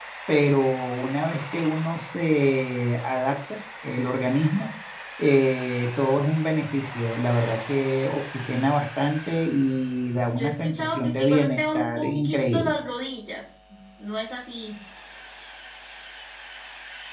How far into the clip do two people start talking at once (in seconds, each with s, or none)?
10.4 s